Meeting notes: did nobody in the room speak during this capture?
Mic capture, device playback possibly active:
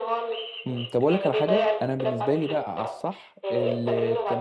No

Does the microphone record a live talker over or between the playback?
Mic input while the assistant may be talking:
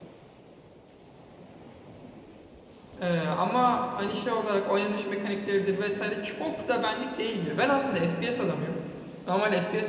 Yes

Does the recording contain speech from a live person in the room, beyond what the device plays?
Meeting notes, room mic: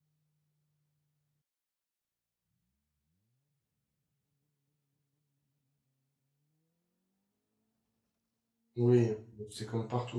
Yes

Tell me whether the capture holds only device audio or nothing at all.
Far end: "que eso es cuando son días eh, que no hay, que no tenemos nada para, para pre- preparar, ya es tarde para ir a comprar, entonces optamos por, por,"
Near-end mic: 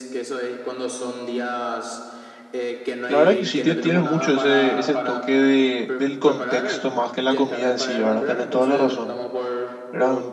No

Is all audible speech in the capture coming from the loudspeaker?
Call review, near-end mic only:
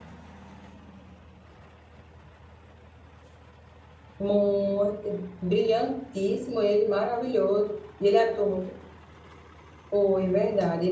No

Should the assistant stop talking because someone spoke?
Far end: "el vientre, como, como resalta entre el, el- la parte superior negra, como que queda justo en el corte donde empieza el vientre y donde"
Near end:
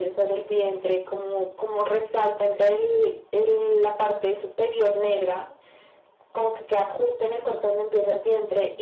No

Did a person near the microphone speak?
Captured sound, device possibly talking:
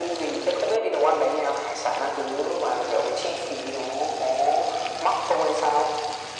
No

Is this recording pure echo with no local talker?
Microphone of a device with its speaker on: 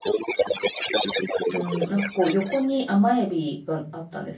No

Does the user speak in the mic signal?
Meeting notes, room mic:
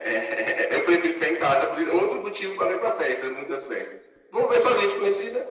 No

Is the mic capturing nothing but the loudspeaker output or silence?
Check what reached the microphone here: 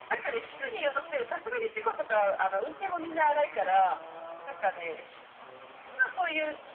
Yes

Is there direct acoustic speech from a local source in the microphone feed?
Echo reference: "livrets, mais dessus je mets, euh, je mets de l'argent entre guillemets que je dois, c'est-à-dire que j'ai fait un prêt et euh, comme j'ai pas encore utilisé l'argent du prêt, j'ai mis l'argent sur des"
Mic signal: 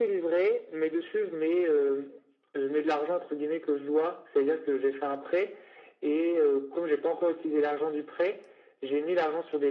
No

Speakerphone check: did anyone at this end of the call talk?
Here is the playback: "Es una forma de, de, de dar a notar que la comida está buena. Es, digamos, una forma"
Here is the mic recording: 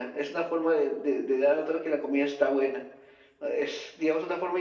No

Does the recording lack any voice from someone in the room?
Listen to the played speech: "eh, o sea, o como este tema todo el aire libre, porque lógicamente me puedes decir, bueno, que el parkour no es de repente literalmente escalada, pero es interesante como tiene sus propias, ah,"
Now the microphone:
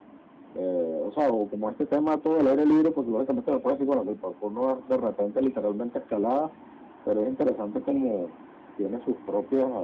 Yes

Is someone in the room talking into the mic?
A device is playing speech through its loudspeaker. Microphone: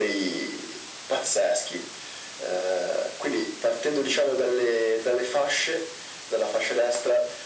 No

